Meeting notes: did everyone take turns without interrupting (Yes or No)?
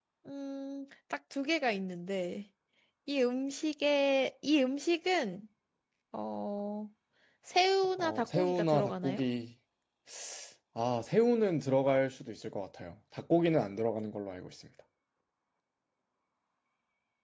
No